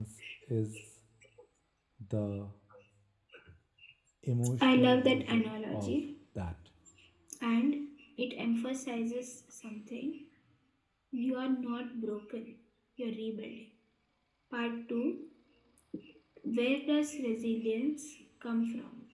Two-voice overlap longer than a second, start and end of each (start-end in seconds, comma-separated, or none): 4.6-6.0